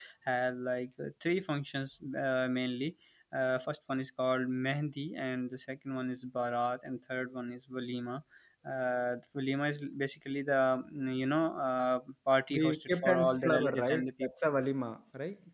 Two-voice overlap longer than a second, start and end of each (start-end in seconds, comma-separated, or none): 12.5-14.3